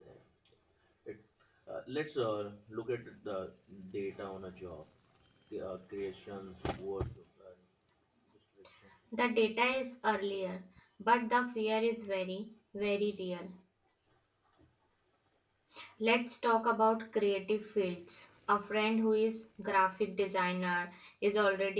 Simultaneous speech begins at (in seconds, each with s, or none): none